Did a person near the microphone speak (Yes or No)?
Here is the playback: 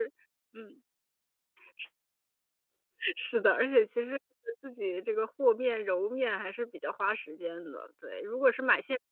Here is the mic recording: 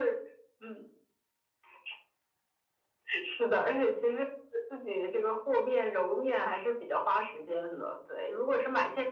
No